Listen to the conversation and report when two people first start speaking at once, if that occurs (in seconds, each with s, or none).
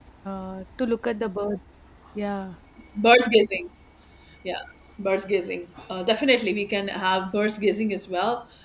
none